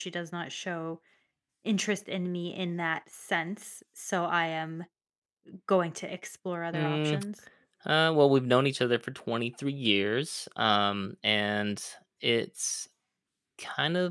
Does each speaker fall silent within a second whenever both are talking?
Yes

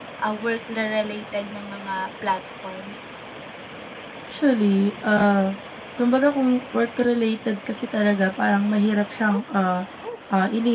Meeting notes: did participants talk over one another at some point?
No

